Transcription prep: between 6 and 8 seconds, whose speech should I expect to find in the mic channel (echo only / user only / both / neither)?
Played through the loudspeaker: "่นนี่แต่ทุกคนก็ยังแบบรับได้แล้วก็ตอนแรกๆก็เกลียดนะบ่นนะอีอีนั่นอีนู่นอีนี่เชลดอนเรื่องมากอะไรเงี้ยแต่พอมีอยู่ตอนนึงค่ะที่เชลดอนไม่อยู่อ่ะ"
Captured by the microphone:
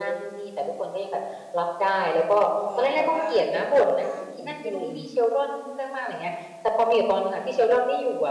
echo only